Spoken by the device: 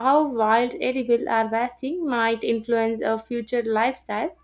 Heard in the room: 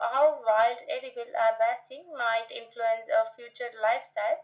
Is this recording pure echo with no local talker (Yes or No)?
Yes